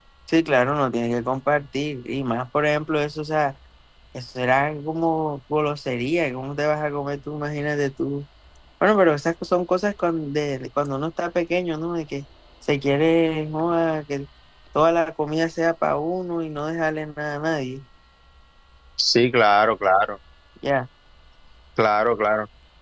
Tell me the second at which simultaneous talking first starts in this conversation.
none

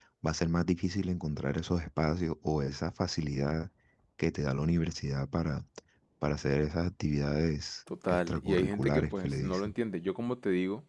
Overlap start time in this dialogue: 7.9 s

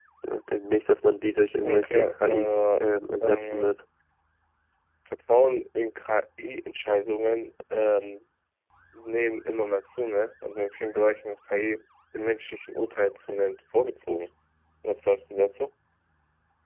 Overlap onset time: 1.6 s

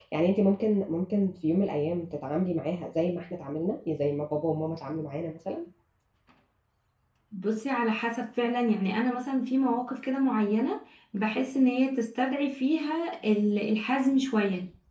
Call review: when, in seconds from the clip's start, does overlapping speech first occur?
none

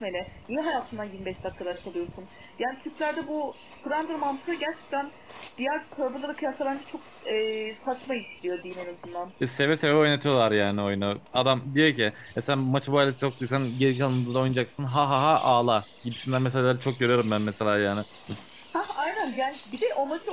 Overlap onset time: none

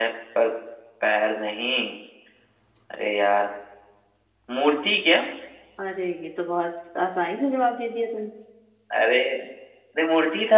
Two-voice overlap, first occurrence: none

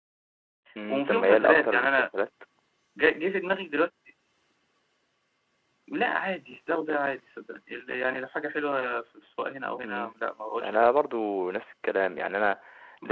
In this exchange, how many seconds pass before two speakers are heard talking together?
0.9 s

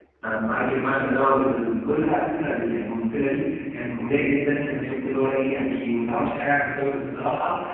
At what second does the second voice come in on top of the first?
none

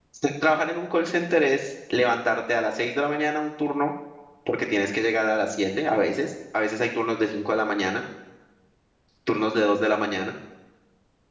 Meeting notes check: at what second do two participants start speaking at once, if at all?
none

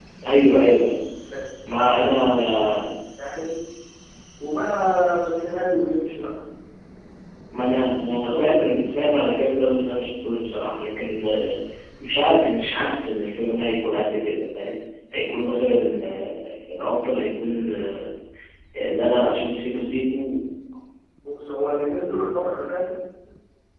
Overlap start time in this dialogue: 8.2 s

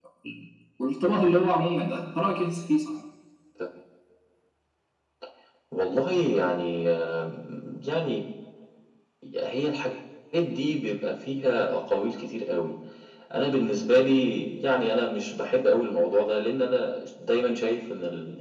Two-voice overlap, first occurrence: none

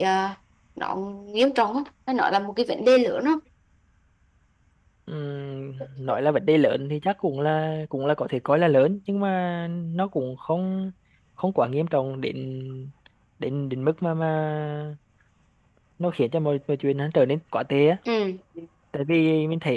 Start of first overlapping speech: none

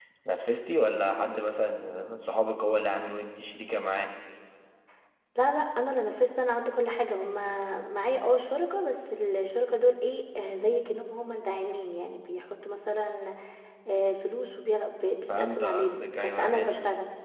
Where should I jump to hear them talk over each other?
15.2 s

